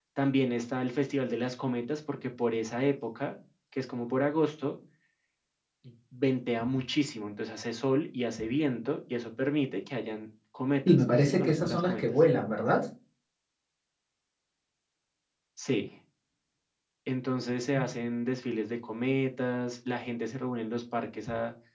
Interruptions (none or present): present